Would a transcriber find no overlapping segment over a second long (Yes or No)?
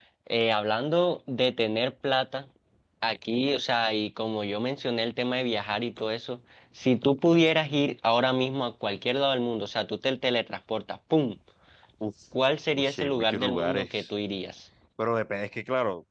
No